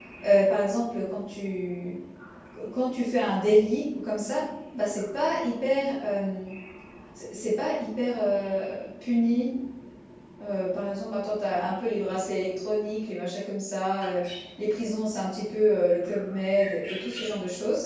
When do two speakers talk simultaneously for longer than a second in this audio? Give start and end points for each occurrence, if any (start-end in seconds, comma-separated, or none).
none